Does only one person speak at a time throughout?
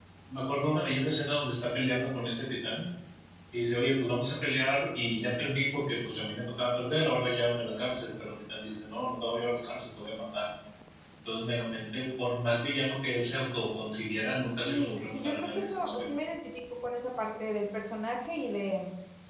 No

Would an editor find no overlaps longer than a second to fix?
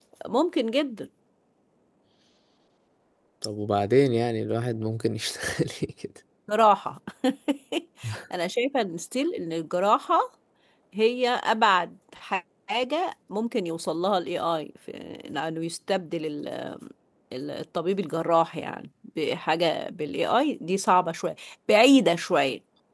Yes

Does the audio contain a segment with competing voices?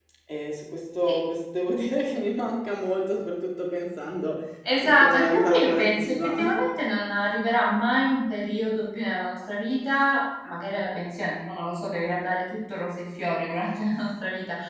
Yes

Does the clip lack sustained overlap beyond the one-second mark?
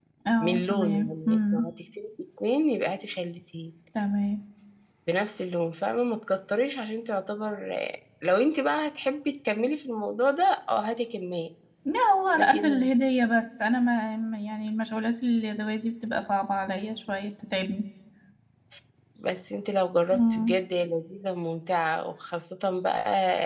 No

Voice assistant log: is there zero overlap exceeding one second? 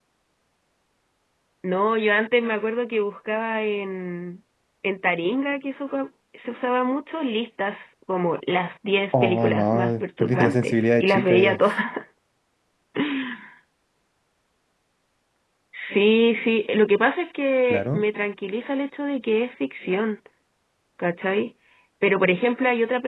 No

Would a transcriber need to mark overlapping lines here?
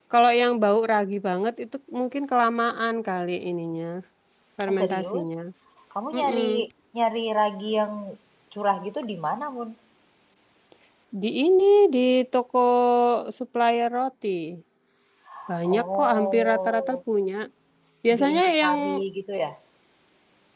Yes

